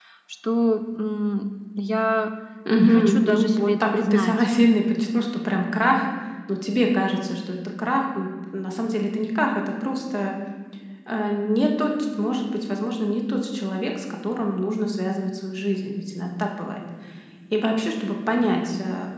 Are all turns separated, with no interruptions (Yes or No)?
No